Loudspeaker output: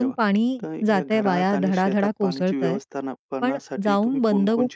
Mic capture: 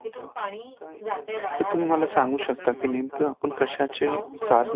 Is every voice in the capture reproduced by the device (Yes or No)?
No